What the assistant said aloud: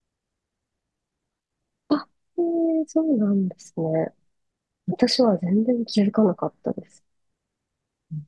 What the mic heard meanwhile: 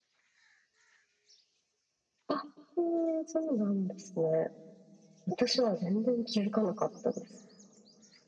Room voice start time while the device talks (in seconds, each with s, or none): none